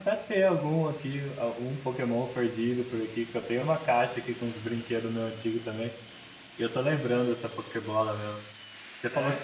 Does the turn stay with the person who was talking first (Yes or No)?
Yes